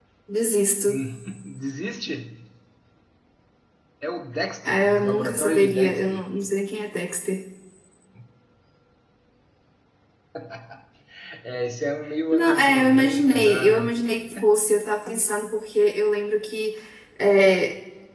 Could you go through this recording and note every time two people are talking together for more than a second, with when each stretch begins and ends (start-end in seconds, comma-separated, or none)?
4.6-6.2, 12.3-14.0